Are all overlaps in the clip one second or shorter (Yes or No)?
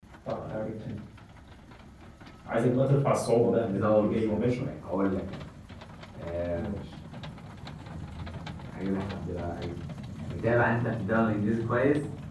No